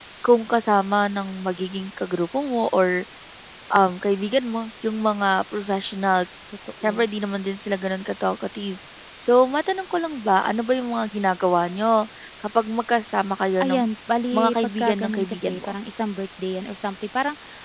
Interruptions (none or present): present